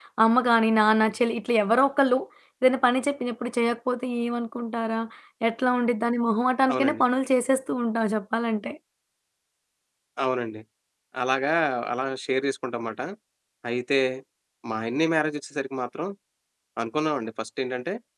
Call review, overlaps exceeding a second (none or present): none